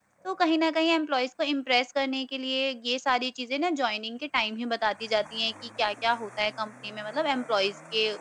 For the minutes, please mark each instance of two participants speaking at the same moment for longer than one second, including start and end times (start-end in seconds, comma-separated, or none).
none